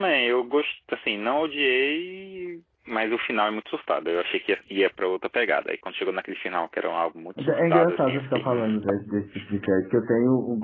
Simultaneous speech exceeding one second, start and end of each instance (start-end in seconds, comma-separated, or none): 7.4-9.0